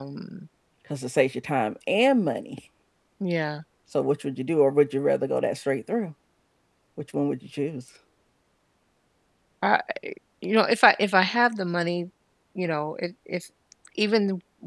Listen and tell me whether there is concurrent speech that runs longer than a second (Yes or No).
No